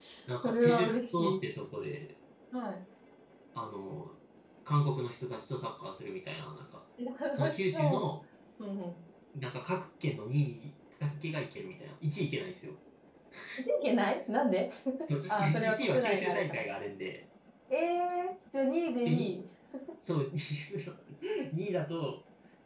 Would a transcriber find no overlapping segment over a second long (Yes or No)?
No